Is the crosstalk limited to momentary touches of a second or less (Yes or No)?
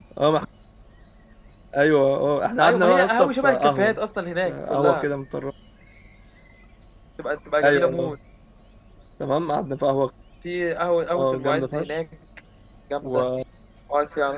No